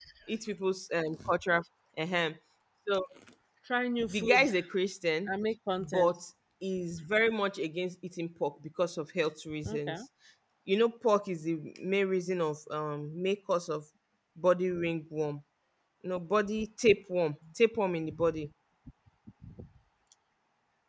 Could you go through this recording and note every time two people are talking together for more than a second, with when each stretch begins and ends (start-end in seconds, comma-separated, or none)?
none